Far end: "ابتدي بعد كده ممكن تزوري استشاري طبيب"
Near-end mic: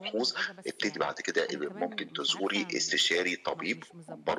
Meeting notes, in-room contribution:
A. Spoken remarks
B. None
A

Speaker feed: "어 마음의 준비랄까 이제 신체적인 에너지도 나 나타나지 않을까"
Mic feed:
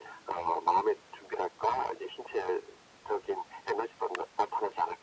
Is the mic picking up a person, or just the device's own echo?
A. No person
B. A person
A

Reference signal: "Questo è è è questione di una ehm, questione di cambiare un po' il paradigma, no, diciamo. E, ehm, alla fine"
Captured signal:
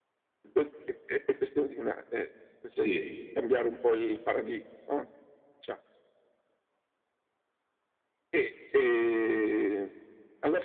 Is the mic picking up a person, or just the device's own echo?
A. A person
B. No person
A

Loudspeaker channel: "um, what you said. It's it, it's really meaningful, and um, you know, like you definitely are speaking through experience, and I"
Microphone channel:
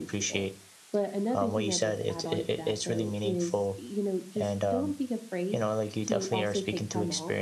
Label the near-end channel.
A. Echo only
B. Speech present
B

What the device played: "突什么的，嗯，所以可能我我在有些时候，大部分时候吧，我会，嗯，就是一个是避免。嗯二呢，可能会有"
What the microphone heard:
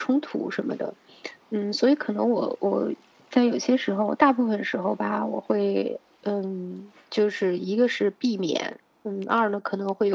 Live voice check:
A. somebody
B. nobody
B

